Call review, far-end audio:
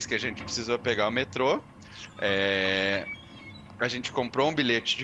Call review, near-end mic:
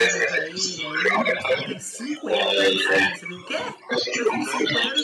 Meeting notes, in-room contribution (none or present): present